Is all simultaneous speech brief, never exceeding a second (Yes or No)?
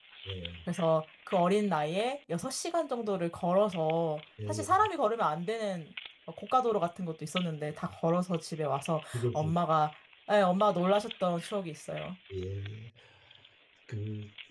Yes